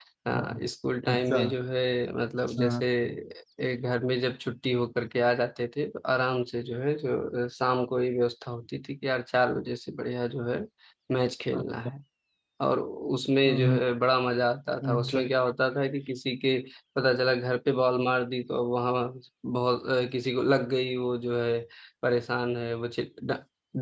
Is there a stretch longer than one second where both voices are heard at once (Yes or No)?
No